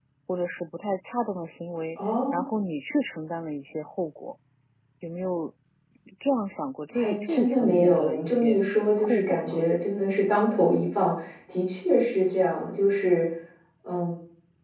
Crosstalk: present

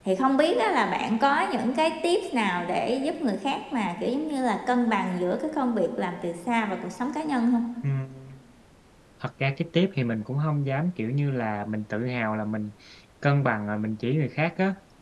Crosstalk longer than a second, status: none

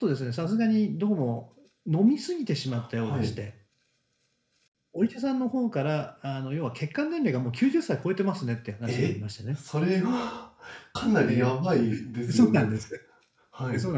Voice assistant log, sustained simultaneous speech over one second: none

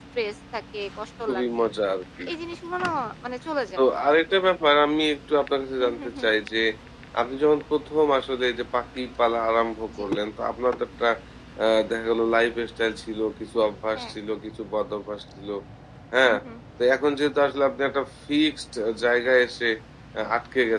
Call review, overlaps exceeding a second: none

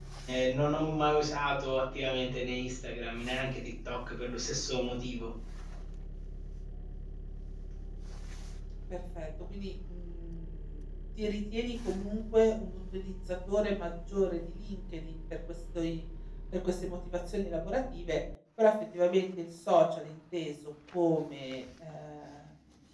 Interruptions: none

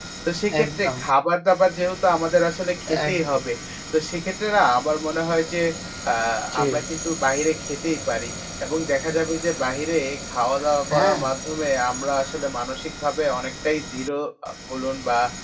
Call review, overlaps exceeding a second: none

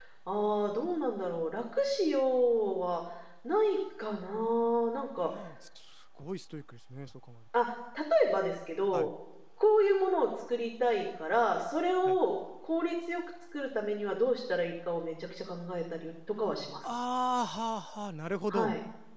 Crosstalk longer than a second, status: none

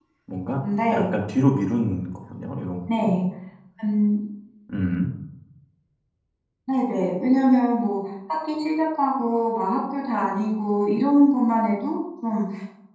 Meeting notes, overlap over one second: none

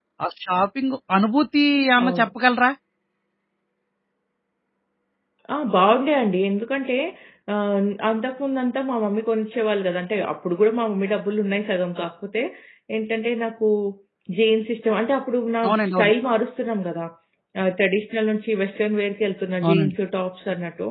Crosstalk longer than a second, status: none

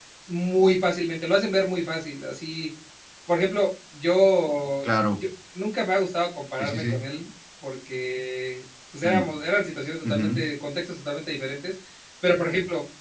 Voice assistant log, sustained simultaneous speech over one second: none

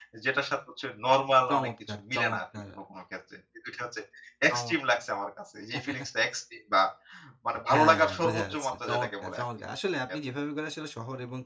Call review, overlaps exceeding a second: present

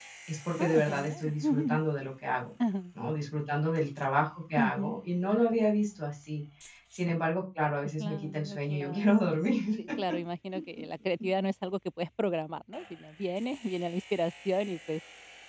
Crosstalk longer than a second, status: present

